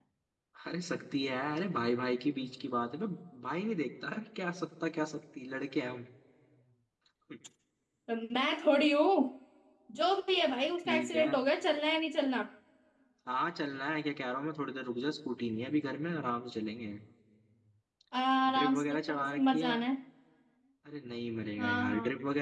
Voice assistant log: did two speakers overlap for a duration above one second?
Yes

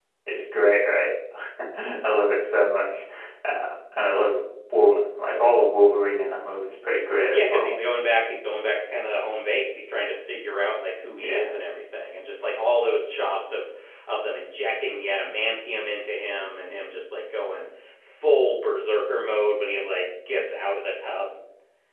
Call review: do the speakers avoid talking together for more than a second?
Yes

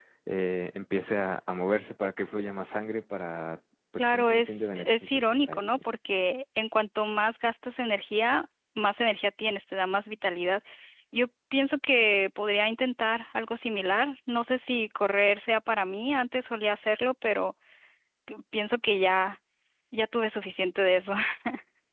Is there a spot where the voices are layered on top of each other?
Yes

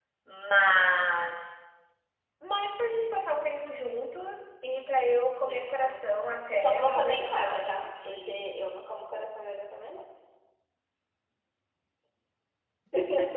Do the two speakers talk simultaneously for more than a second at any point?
Yes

